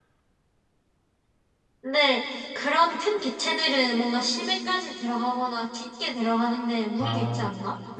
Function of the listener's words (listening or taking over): taking over